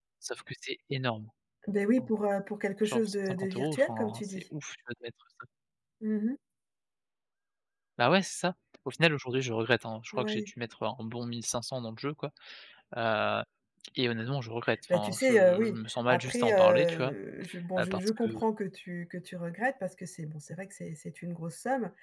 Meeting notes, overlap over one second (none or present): present